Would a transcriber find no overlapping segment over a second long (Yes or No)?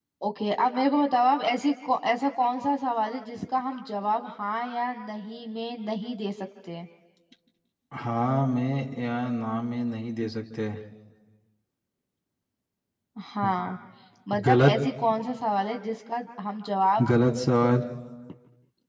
Yes